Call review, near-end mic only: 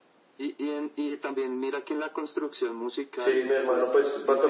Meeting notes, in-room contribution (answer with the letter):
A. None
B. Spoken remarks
B